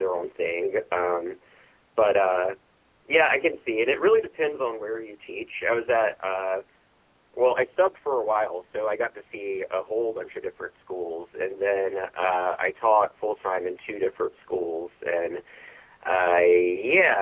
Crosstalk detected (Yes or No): No